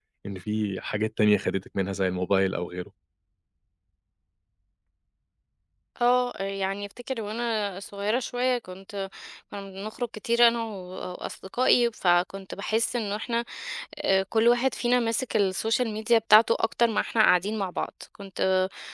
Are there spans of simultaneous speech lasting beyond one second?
No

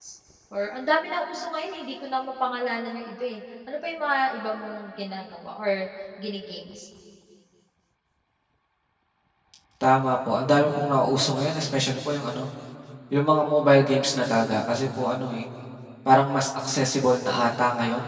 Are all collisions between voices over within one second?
Yes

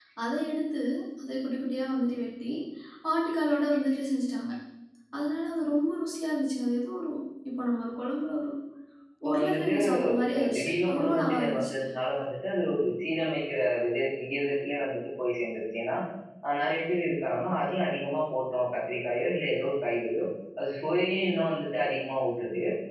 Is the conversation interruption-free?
No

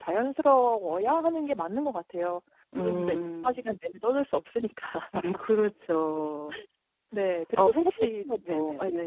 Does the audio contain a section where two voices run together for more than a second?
Yes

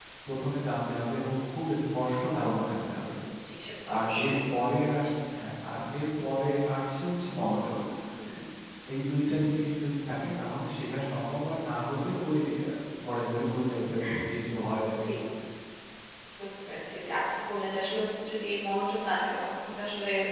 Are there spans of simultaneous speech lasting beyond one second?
No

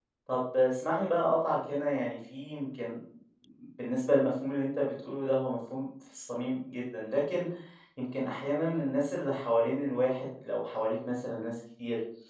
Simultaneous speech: No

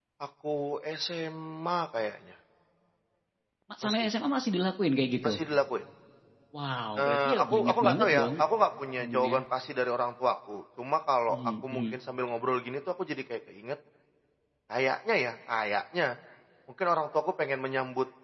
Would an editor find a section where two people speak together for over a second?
Yes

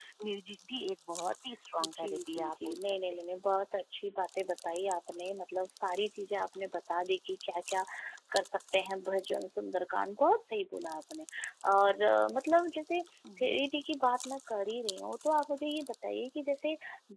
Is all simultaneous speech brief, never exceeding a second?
No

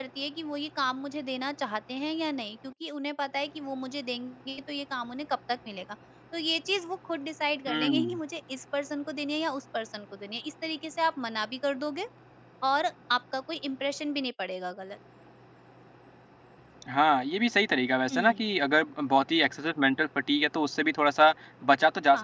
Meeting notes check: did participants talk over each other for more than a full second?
No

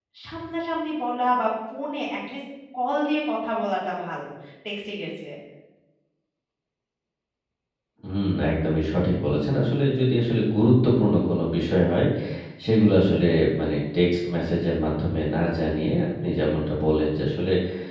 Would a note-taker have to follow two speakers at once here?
No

